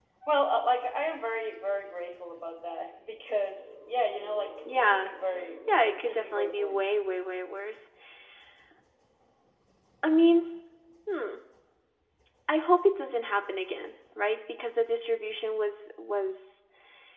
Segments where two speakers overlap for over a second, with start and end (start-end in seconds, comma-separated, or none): 5.7-6.9